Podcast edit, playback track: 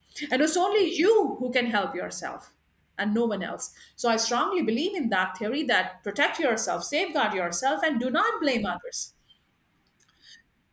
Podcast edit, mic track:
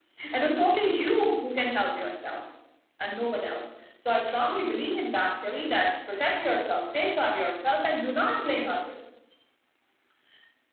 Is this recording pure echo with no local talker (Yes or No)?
Yes